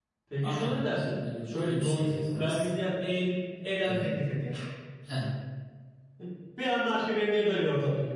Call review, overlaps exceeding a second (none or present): present